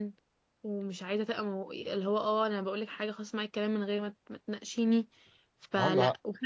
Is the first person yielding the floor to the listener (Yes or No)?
No